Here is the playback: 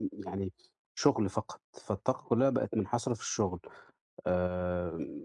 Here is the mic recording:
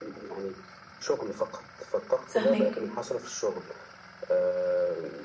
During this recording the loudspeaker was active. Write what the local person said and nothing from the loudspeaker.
فاهماك.

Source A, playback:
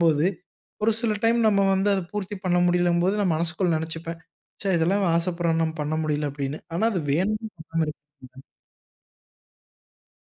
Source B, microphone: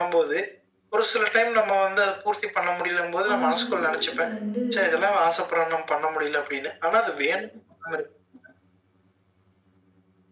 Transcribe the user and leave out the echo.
அவங்க கணவர்கிட்ட வந்து

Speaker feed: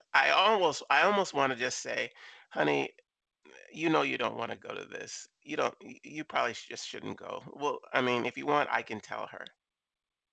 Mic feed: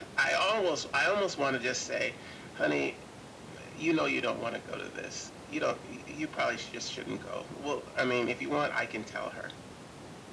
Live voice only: none

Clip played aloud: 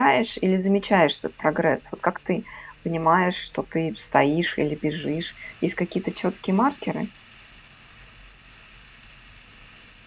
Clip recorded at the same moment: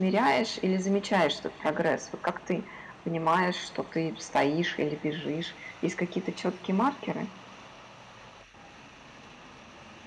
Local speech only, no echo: none

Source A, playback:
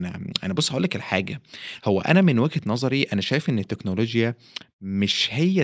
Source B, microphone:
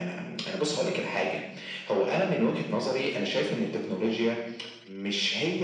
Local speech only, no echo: none

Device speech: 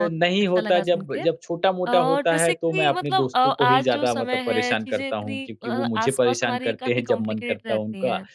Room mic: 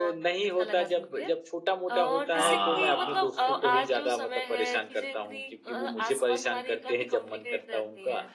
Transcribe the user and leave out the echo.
हाँ, सही बात।

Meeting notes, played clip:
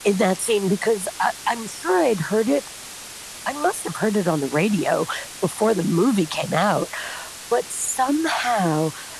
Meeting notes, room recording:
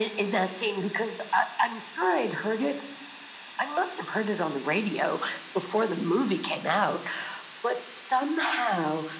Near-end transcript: none

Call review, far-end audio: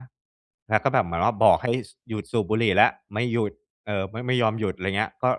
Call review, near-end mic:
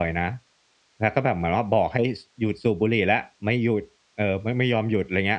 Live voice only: none

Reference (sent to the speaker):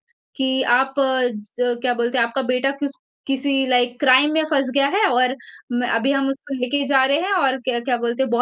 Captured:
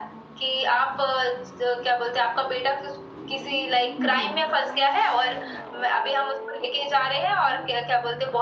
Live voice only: हुँ, हुँ।

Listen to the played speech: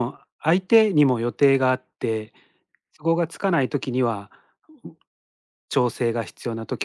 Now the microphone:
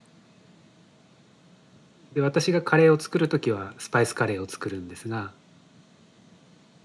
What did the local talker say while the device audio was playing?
で、私がカレーを作るときはスパイスカレーを作るんですが、

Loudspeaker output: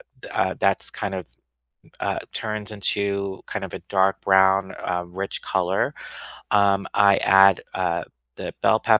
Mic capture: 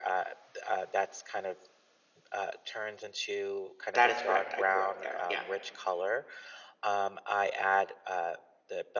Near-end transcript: That is correct. I grew up there. Yeah.

